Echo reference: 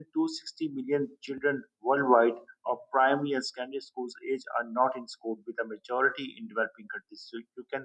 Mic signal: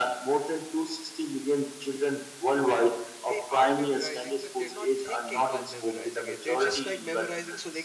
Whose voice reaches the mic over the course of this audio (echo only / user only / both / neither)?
both